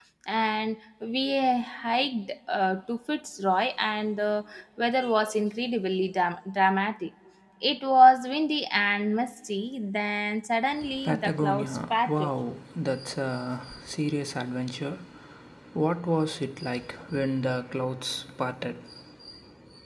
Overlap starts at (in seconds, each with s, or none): 11.0 s